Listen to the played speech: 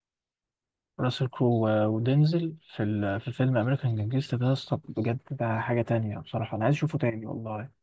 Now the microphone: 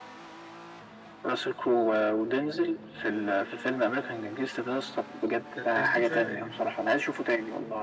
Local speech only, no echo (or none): ده ده جديد شويه تقريبا